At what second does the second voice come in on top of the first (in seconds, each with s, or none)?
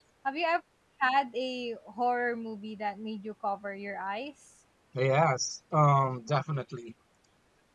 none